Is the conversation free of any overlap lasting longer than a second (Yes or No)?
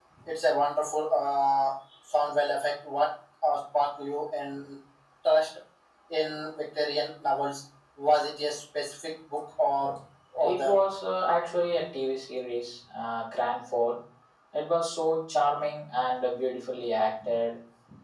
Yes